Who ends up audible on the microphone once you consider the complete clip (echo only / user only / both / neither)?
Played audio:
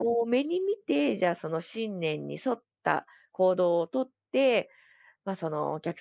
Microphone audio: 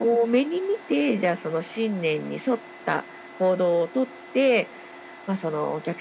echo only